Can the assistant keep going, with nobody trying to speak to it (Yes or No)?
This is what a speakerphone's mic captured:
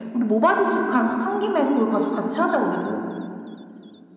Yes